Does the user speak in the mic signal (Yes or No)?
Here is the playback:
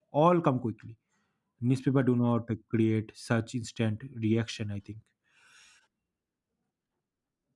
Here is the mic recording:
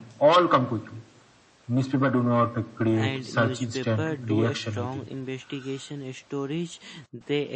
Yes